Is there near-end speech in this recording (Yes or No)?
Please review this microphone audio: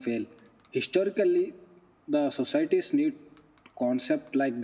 No